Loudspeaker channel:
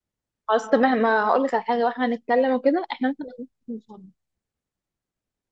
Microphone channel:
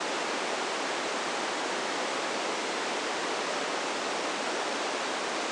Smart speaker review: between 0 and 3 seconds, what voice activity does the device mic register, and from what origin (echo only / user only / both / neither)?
neither